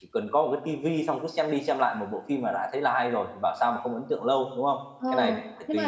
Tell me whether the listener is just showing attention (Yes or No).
No